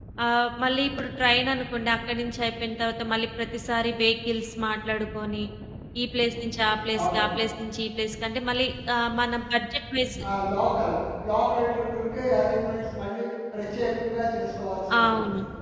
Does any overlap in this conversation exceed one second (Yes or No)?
No